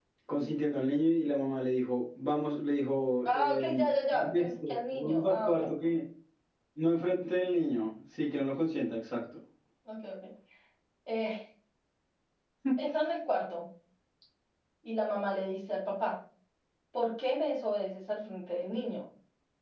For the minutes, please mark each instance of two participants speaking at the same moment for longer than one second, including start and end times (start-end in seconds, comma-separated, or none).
3.2-5.5